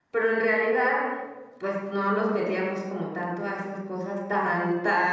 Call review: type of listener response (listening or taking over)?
listening